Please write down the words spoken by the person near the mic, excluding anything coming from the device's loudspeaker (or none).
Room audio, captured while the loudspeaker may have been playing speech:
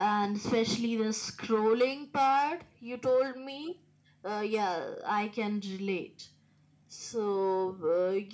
none